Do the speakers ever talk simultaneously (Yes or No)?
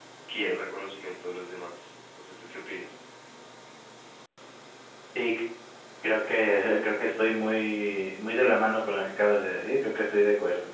No